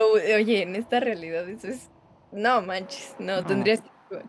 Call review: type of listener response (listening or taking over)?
listening